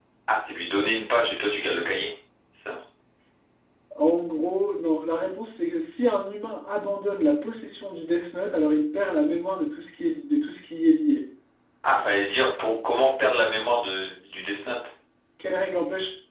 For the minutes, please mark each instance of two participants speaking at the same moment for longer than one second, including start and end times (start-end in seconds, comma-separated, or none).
none